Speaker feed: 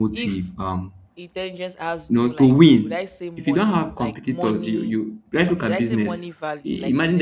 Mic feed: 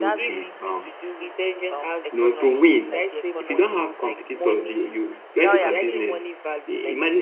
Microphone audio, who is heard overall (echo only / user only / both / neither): both